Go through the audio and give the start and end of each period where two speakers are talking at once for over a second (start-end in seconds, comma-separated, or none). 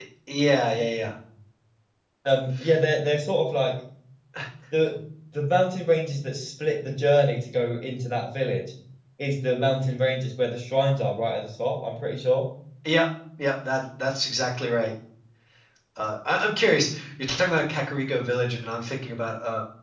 none